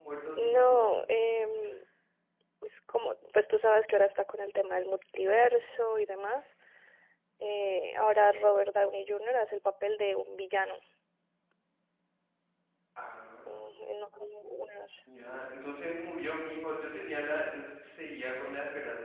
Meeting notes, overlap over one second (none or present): none